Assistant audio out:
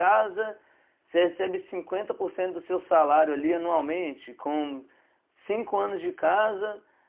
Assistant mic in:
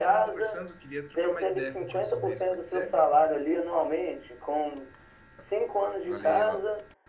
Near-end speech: present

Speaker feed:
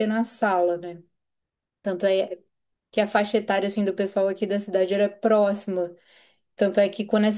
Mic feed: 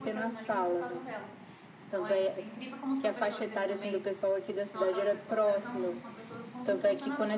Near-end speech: present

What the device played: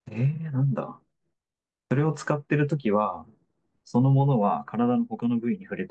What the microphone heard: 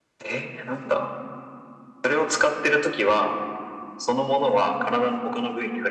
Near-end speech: none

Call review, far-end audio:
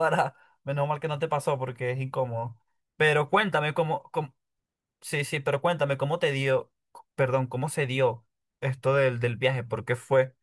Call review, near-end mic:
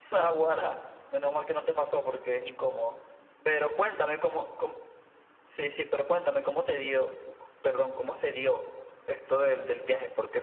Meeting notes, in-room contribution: none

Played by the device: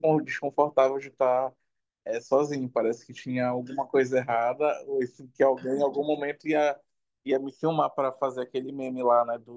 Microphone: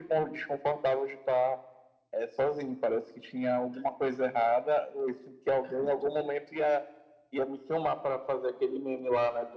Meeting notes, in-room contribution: none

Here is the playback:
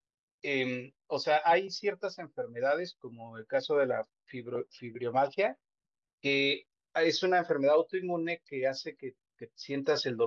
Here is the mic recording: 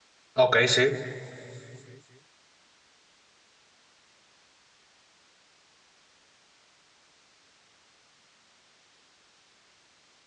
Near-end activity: present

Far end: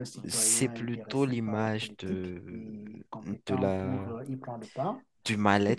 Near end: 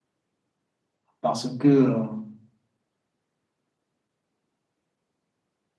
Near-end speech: present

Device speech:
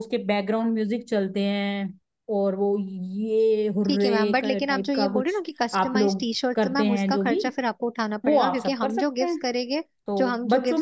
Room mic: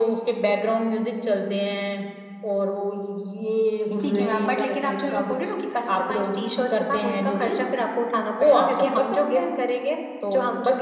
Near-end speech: present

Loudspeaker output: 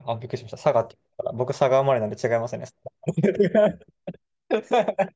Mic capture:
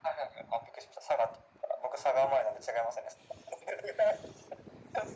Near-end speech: none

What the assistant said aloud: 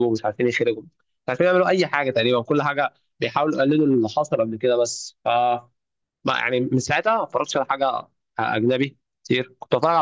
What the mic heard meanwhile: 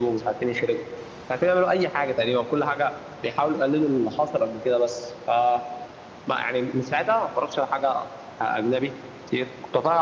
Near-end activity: none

